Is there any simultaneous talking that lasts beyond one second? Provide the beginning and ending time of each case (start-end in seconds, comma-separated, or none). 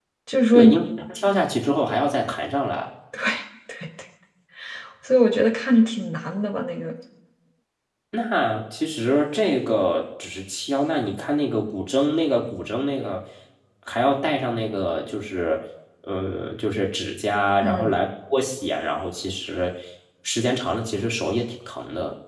none